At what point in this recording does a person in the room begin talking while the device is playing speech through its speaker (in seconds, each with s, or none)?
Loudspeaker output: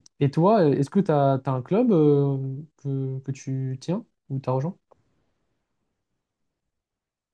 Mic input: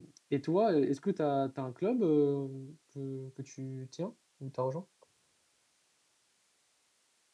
none